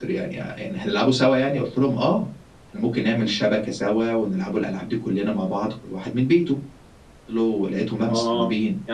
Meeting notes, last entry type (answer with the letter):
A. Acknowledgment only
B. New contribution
B